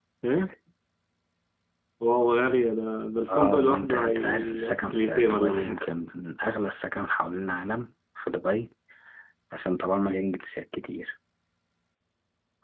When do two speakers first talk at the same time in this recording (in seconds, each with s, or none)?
3.3 s